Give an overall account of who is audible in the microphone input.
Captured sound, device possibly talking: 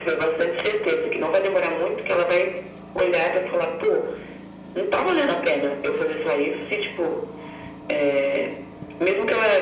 echo only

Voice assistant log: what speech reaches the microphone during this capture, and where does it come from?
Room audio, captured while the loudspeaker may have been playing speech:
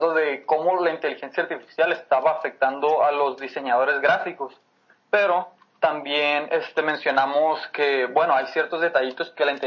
echo only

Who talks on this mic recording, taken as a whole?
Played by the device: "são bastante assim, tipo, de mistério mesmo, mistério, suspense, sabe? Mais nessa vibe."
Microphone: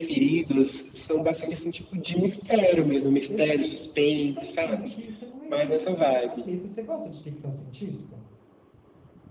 both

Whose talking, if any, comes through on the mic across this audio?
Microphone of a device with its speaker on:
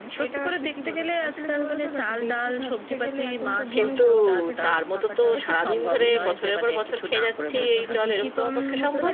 both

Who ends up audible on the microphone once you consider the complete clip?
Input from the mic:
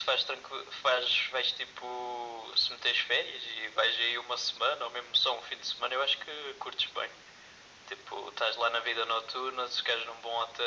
echo only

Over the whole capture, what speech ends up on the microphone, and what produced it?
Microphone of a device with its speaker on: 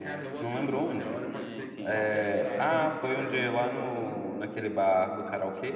both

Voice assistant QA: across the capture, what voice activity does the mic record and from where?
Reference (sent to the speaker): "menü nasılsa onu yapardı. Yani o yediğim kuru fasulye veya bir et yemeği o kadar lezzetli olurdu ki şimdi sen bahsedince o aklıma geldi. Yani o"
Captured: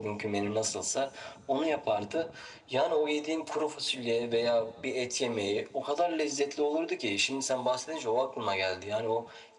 echo only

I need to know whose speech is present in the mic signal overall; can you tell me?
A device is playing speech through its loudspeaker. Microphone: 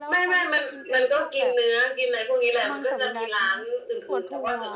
both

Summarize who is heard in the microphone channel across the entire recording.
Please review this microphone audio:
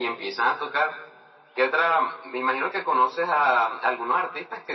echo only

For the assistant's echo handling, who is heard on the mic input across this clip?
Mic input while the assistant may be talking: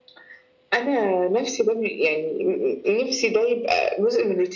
echo only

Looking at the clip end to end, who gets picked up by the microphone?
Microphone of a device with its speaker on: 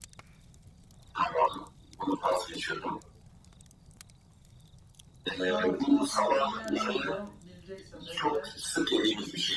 both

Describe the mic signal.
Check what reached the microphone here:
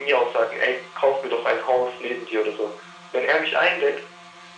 echo only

